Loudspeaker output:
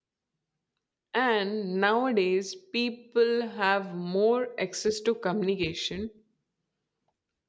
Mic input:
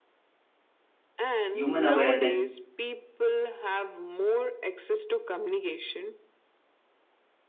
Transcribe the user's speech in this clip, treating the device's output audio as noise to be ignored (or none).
human awareness